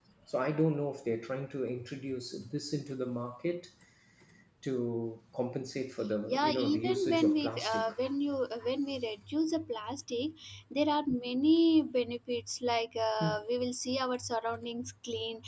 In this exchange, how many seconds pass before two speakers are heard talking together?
6 s

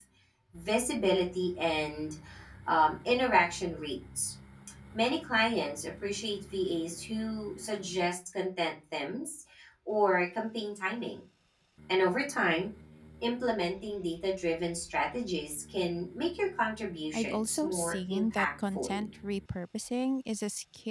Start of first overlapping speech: 17 s

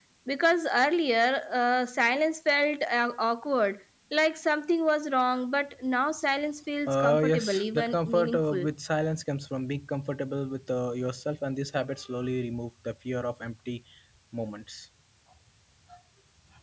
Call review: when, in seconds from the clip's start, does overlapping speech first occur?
7 s

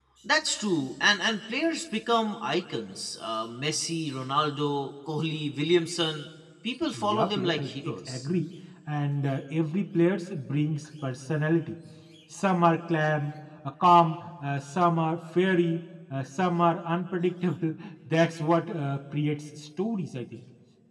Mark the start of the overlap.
7 s

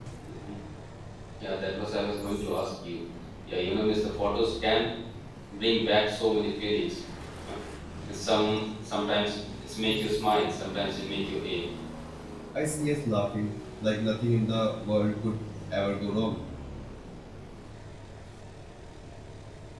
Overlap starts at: none

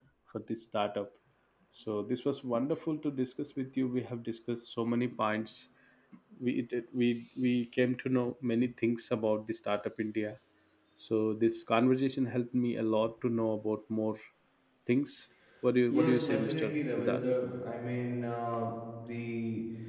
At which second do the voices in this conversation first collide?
16 s

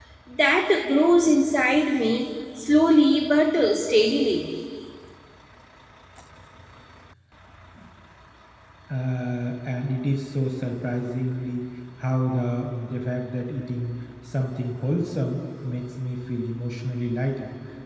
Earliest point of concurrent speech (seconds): none

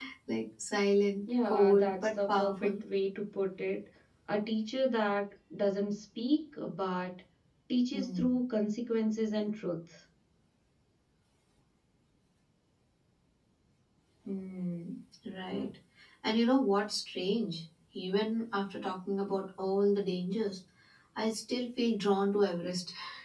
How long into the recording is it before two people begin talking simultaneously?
1 s

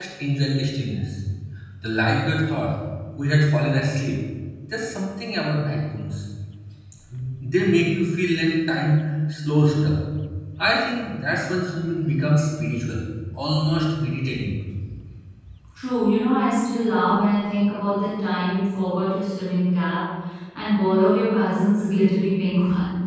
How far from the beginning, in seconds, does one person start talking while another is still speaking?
none

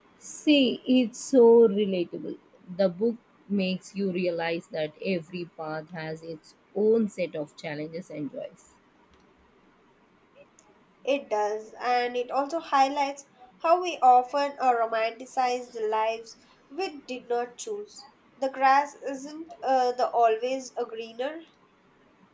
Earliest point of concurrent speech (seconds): none

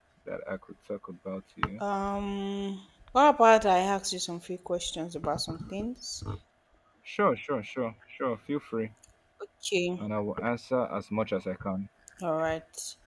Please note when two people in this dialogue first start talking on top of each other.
none

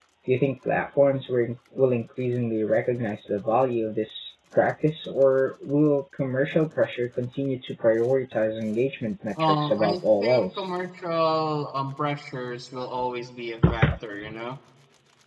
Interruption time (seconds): 9 s

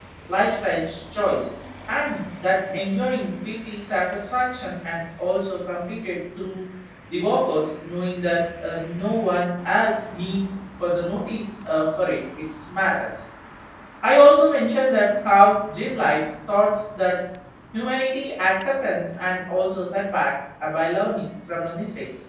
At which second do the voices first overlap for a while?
none

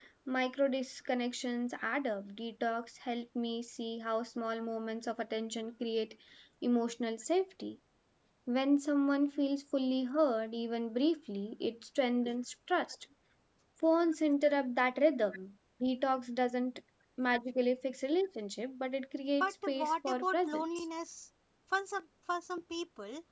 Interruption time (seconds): 19 s

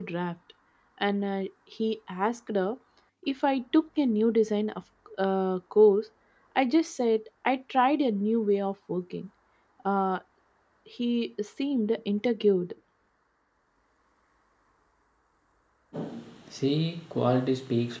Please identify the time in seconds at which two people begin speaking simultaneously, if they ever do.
none

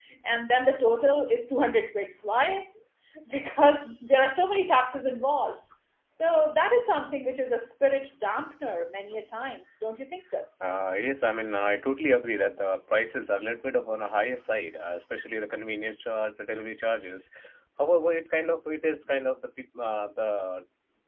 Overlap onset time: none

